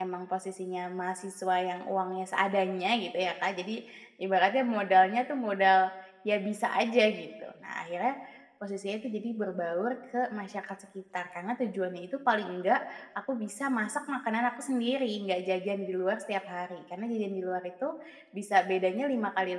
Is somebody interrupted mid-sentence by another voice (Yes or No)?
No